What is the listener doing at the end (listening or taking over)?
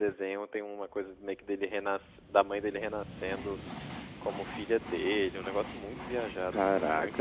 taking over